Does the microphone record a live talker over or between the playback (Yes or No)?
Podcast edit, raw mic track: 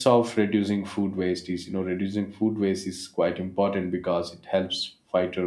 Yes